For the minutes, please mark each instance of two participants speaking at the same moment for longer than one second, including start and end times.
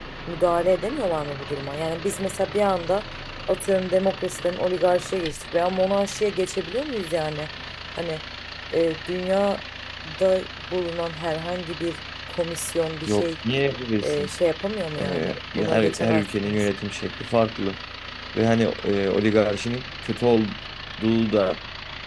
15.0-16.7

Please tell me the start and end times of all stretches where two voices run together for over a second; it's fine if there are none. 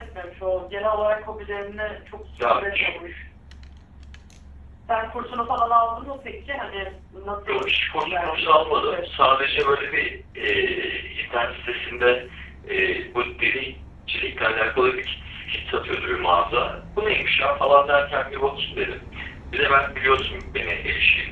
7.5-9.3

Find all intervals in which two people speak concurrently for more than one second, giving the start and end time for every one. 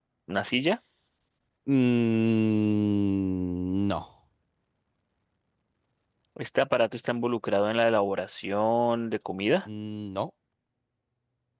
none

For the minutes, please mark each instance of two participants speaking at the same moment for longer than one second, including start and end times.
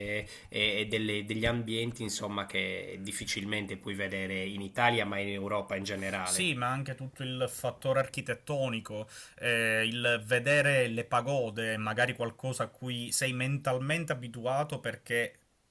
none

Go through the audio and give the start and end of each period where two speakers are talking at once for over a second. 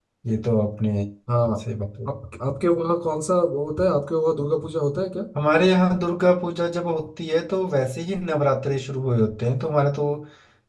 none

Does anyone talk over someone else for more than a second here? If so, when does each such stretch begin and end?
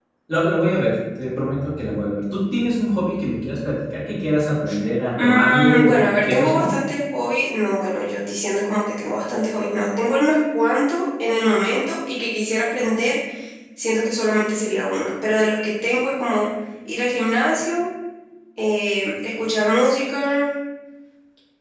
5.2-6.7

